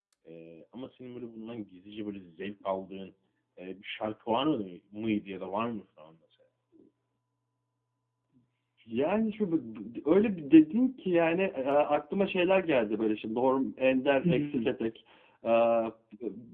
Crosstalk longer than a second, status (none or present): none